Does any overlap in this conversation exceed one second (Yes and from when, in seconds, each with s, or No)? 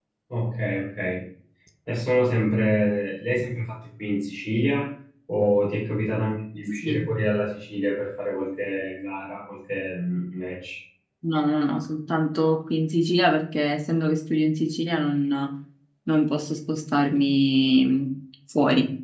No